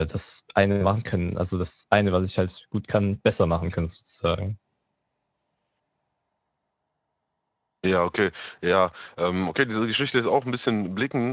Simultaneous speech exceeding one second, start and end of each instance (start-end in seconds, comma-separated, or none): none